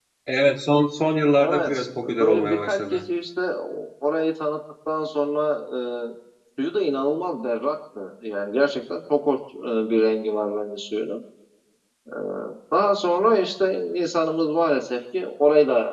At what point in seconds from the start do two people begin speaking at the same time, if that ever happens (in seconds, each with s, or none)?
1.4 s